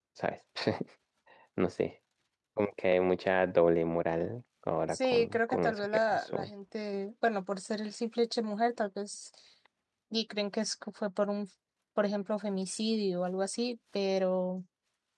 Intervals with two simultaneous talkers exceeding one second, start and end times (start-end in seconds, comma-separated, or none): 4.9-6.5